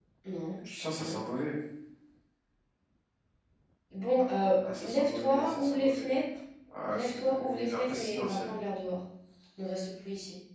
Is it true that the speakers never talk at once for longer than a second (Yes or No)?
No